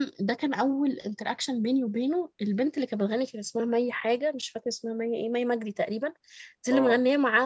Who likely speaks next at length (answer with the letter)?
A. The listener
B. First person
B